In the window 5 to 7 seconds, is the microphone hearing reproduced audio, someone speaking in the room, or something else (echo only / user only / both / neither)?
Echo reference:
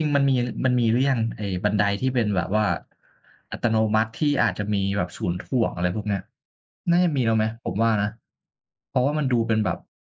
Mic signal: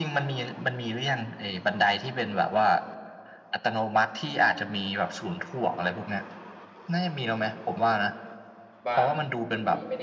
echo only